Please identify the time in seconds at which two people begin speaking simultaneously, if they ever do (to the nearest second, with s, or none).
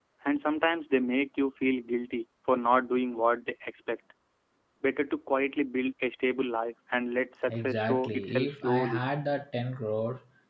7 s